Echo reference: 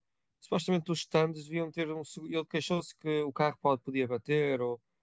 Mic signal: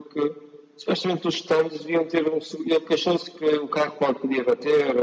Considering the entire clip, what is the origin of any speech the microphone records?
echo only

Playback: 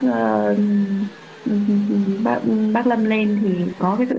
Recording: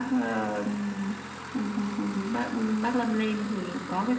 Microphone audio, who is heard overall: echo only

